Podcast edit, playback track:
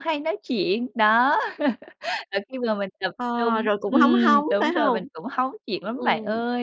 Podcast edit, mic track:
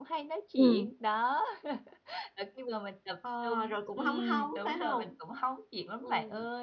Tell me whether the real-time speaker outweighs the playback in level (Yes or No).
Yes